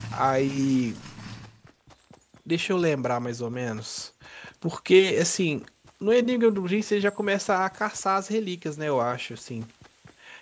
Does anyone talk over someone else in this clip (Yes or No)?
No